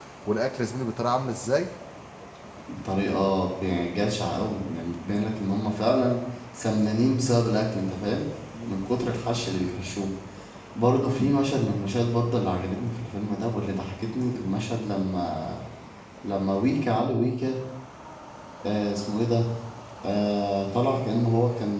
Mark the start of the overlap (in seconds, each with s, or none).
none